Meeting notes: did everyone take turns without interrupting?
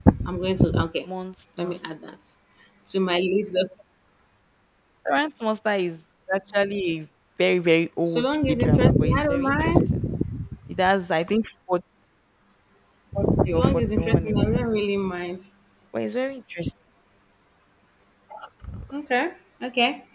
No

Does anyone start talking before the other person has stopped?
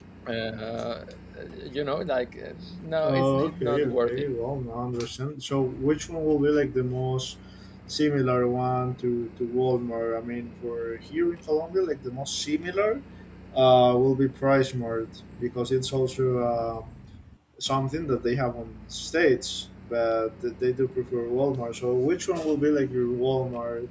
Yes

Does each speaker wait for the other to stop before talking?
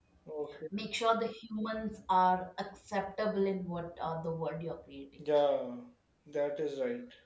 Yes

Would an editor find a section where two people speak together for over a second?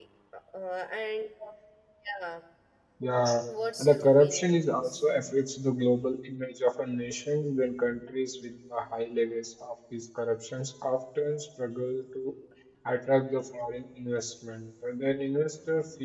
Yes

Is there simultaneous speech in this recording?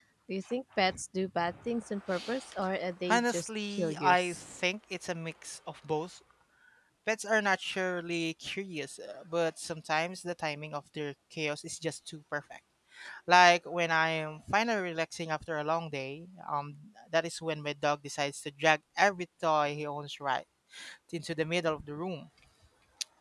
Yes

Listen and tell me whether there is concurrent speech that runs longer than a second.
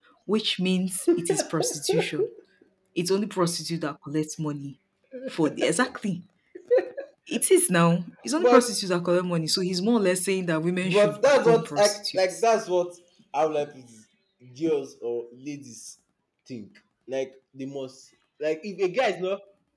Yes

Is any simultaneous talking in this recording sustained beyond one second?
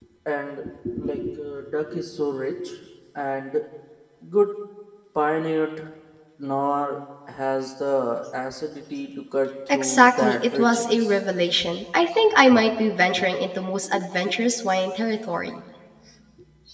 Yes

